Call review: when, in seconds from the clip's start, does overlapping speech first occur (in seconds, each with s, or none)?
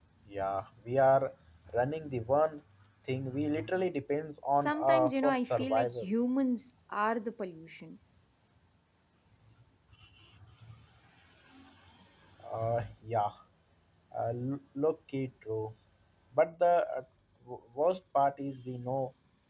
4.6 s